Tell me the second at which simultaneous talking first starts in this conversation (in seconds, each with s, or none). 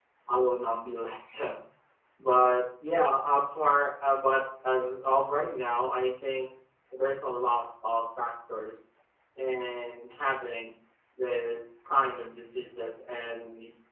none